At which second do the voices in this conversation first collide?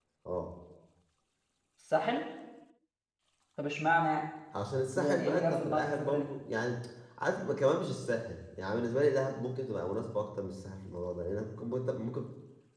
4.9 s

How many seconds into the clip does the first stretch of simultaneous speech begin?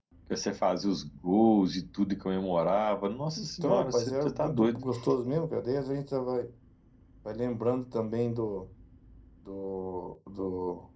3.4 s

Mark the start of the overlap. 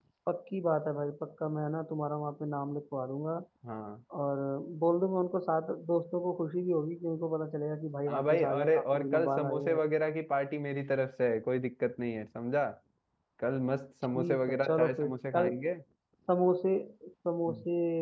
8.1 s

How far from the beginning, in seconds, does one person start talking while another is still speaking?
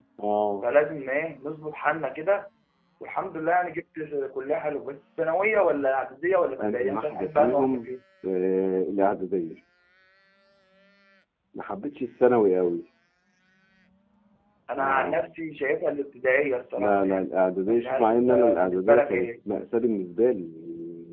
6.6 s

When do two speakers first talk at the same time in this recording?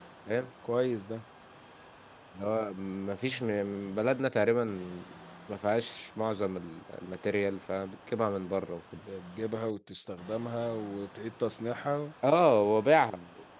none

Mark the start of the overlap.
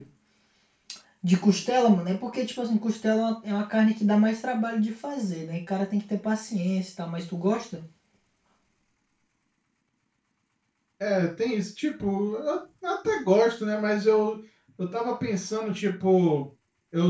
none

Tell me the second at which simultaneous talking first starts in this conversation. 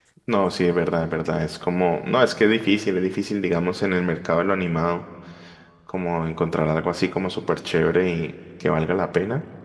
none

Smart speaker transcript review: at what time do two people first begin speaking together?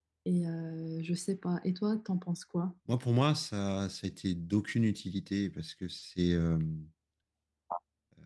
none

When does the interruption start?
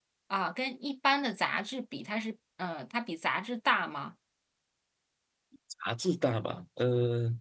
none

